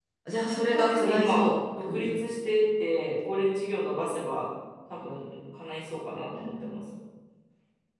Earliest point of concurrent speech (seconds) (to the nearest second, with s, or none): 1 s